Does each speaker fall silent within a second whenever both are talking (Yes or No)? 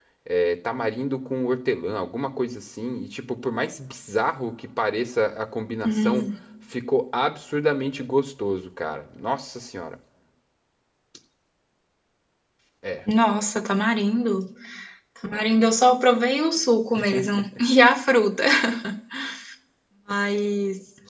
Yes